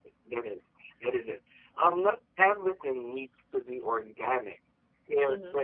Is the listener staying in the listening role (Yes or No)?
Yes